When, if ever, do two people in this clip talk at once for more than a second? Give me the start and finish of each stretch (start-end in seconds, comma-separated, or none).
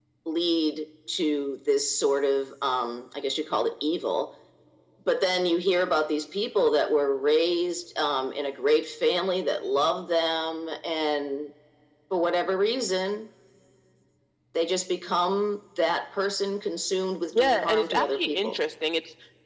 17.3-18.6